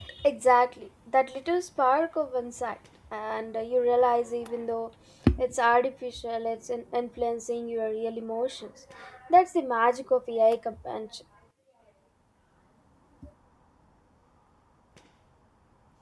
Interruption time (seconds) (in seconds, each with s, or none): none